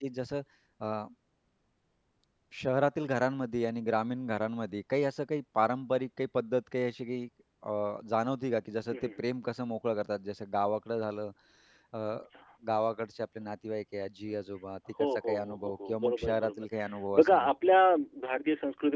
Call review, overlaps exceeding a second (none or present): present